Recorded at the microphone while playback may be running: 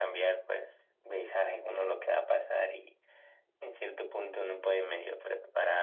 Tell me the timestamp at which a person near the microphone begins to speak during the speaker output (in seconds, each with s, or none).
none